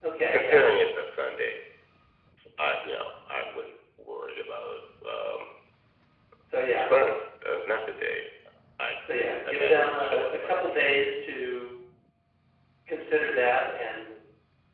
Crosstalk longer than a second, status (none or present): present